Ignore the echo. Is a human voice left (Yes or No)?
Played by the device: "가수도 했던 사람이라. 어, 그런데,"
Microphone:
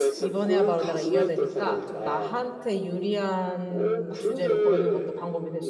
Yes